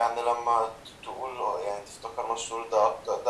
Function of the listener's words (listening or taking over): listening